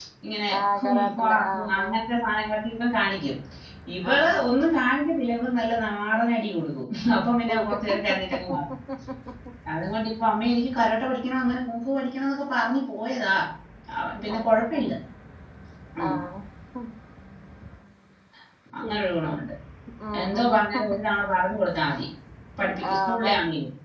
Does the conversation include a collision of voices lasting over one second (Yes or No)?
Yes